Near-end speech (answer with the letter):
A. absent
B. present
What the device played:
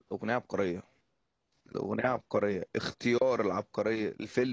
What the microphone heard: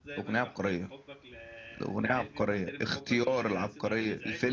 B